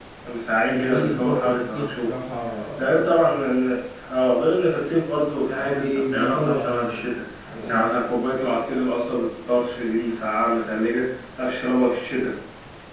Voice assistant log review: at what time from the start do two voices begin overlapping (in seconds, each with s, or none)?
0.7 s